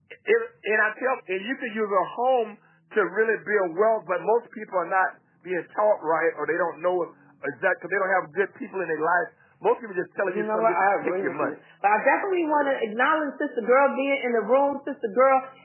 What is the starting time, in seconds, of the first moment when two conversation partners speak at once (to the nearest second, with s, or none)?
10 s